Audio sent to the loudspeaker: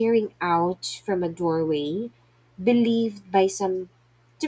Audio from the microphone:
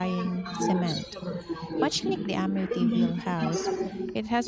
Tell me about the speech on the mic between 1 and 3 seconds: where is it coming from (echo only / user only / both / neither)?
both